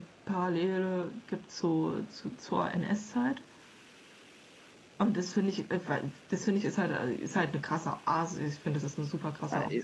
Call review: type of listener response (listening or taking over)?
taking over